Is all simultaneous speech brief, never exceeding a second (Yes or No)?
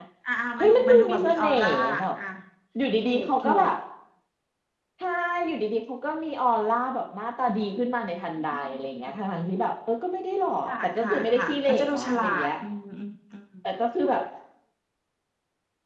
No